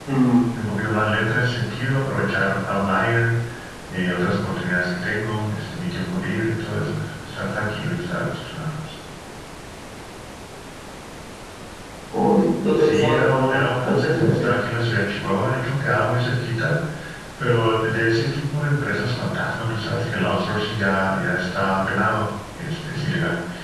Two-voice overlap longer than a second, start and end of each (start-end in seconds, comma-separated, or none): 12.9-14.5